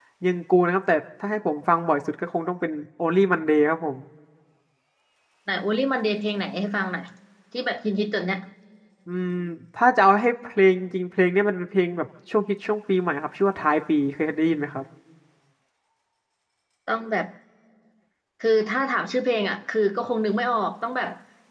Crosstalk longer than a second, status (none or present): none